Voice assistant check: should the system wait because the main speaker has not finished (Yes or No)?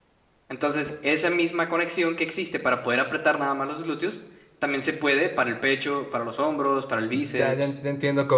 No